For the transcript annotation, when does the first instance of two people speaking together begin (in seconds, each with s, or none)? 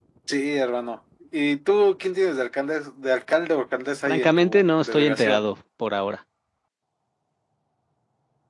4.1 s